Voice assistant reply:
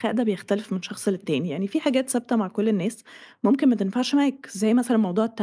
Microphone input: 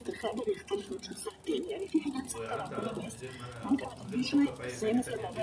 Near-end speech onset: 2.1 s

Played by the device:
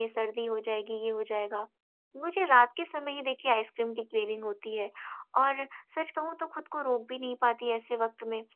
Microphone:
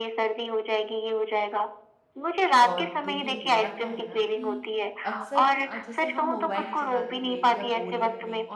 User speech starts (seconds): 2.7 s

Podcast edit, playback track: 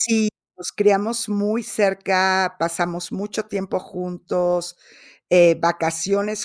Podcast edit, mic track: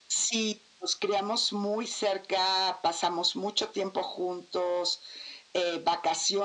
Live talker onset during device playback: none

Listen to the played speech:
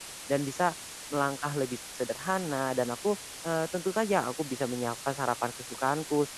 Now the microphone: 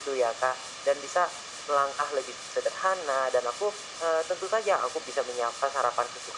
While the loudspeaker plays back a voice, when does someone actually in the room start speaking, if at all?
none

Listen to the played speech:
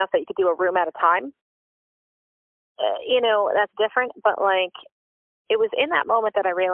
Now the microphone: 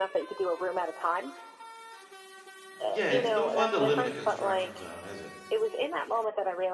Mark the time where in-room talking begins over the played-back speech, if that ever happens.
2.9 s

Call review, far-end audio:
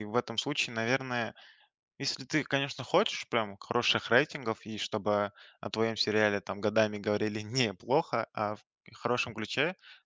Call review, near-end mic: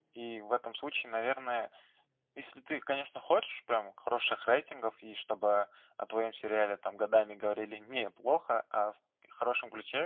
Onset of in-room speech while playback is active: none

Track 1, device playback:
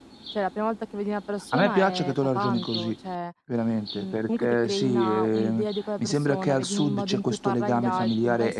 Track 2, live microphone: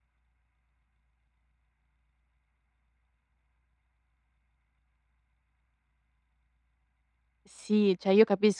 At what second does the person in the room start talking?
7.4 s

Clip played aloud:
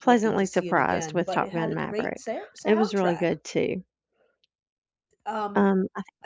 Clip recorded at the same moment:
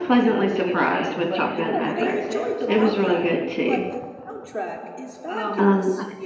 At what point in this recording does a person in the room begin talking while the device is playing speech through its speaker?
1.5 s

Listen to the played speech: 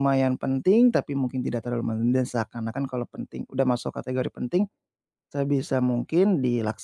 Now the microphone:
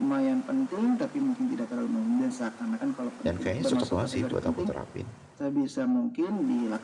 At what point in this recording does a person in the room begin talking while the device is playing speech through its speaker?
3.2 s

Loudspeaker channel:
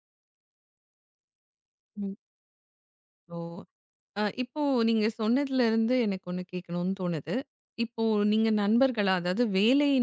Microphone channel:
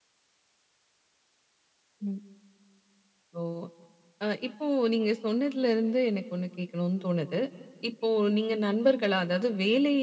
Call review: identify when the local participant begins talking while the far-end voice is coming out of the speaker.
none

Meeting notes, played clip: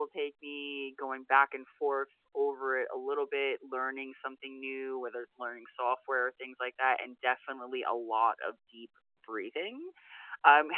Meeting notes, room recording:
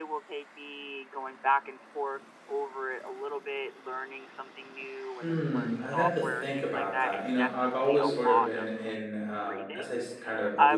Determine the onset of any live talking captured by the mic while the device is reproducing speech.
5.2 s

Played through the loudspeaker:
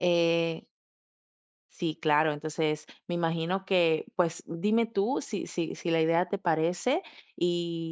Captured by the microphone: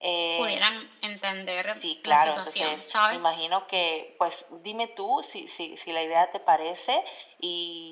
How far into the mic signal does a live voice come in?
0.3 s

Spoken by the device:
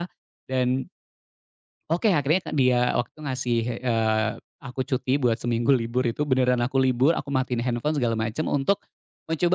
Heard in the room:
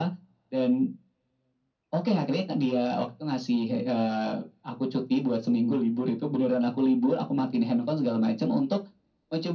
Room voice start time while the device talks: none

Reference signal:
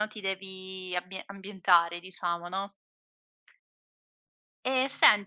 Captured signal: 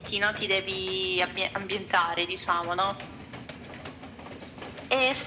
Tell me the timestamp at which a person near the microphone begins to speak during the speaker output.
none

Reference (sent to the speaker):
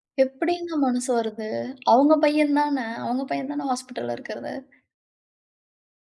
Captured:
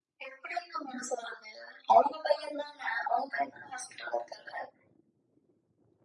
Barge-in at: none

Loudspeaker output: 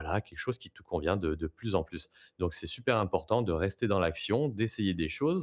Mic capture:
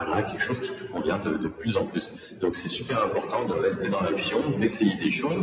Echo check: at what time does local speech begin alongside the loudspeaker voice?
none

